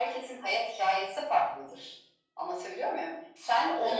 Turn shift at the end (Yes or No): No